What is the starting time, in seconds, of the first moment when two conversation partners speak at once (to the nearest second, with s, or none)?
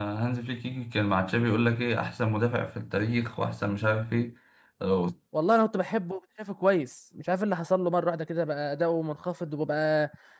none